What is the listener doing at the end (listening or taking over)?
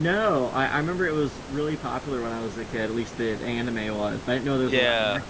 taking over